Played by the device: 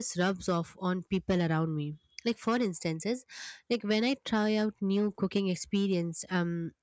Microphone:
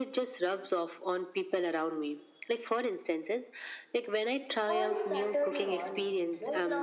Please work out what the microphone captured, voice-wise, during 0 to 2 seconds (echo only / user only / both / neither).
echo only